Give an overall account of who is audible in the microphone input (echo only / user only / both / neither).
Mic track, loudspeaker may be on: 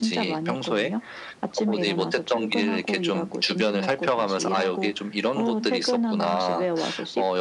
echo only